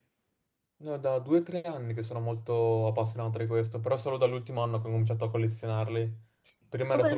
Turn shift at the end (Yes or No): No